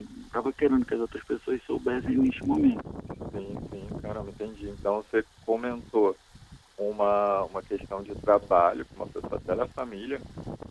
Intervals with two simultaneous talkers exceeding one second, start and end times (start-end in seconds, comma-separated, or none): none